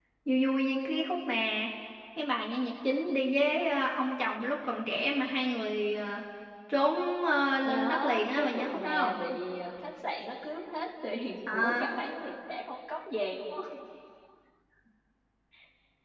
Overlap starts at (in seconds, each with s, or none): 7.6 s